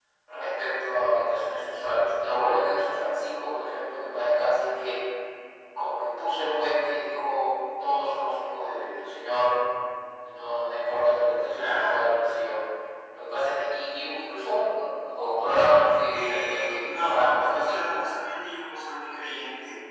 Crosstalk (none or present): present